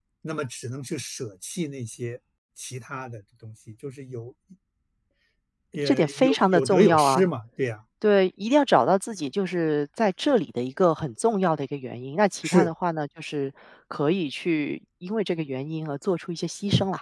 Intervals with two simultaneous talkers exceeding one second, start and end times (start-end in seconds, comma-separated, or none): 5.8-7.3